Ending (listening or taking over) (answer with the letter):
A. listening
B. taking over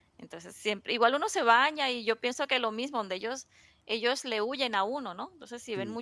A